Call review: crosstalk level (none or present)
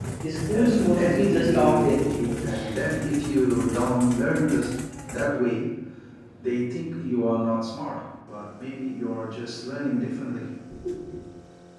present